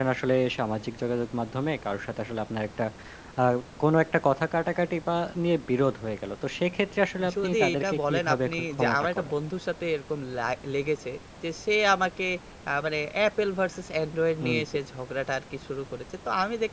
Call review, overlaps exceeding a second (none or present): present